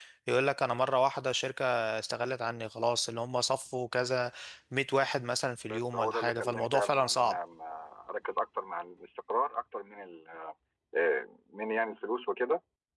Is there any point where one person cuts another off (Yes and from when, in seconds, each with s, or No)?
Yes, from 5.7 s